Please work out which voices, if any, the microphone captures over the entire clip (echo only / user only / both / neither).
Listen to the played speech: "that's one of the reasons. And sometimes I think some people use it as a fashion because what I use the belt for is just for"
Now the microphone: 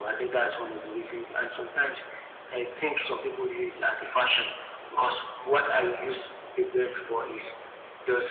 echo only